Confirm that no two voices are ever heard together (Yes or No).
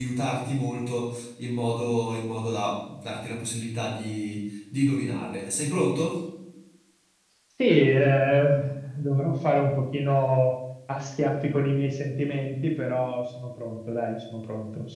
Yes